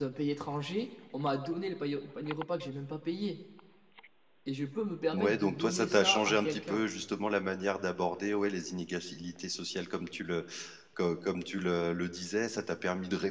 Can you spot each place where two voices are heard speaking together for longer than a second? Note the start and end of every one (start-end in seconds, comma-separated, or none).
5.1-6.8